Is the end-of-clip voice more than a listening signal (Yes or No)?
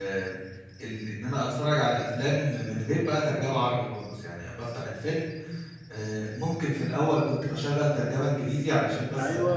Yes